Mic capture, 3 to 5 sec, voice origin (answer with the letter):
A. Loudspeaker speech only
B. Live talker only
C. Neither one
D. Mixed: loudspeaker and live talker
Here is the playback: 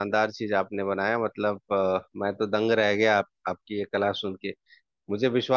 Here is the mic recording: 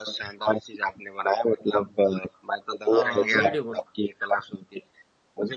D